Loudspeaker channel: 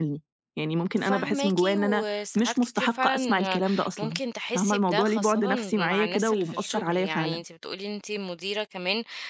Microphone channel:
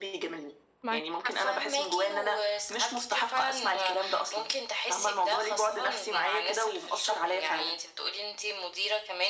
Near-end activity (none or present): present